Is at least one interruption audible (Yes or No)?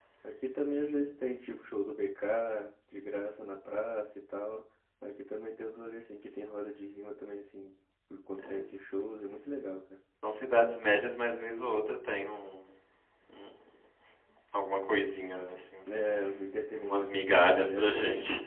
Yes